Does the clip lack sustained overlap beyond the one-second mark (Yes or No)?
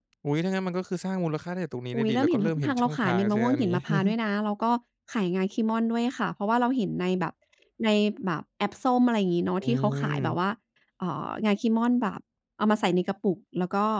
No